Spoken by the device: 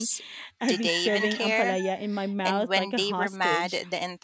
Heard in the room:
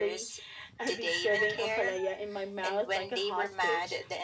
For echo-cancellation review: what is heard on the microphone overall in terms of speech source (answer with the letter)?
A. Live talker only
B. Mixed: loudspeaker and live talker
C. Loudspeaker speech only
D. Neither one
C